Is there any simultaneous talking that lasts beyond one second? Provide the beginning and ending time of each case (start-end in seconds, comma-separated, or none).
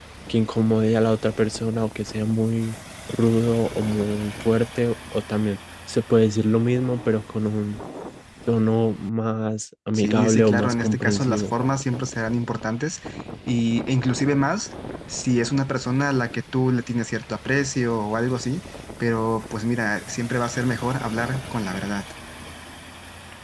9.9-11.4